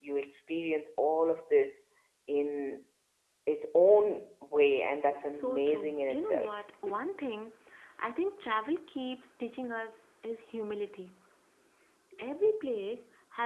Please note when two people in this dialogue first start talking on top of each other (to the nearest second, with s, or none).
5 s